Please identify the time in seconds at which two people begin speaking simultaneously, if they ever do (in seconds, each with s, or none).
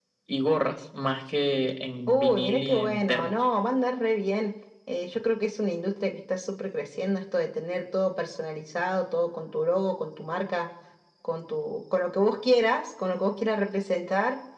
2.1 s